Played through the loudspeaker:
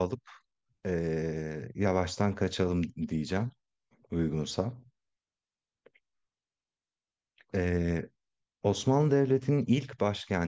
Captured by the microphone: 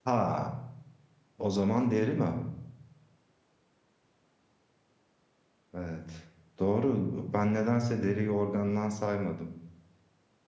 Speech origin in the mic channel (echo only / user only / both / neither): user only